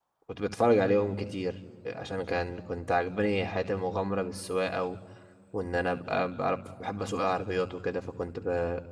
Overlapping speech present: No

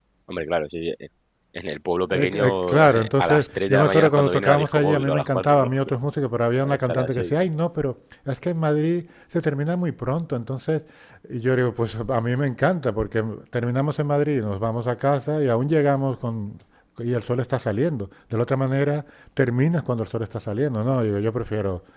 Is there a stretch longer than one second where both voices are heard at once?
Yes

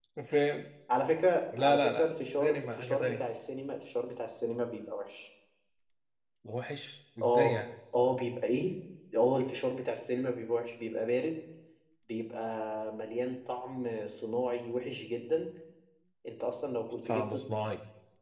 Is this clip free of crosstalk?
No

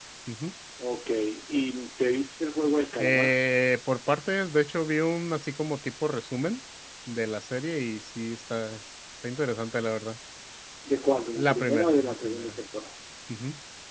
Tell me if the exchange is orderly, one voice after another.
No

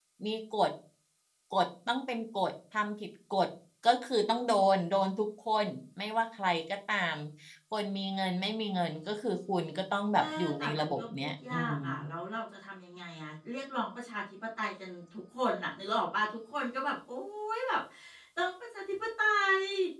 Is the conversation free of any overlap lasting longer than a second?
No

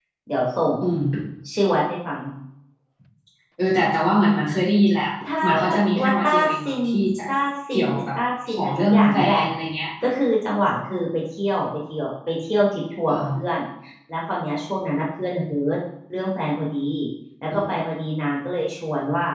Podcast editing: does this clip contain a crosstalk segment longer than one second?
Yes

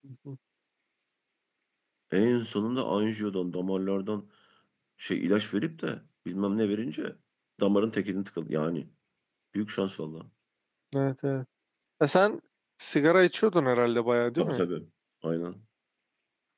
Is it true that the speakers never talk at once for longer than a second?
Yes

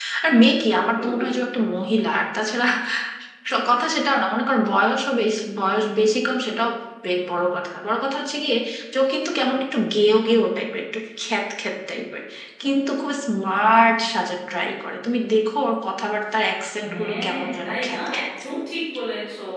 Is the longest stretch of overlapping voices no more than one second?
No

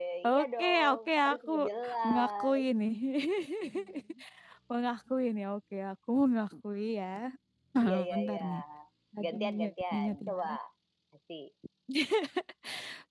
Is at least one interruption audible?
Yes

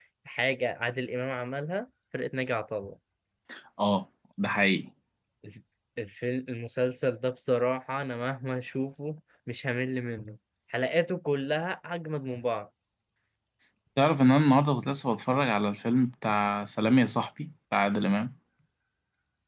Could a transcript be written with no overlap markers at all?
Yes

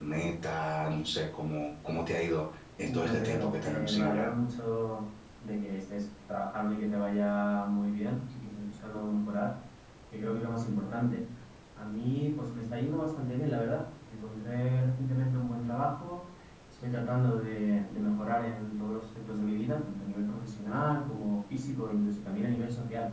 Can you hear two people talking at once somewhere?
Yes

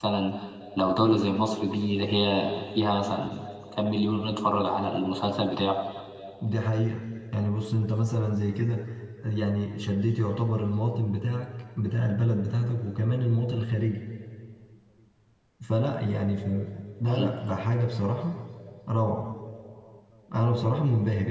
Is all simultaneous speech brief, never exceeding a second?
Yes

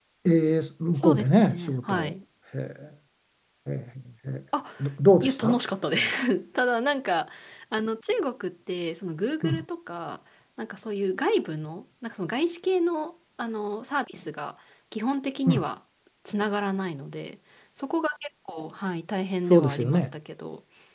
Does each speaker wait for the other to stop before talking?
No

